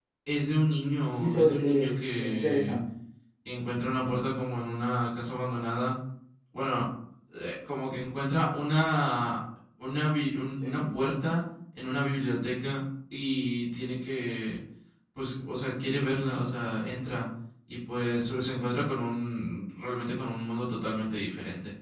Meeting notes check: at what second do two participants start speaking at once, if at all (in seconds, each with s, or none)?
1.2 s